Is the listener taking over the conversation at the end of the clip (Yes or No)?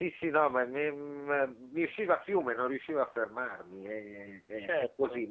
No